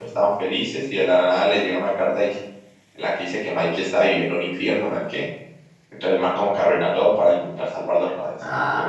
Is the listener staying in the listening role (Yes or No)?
No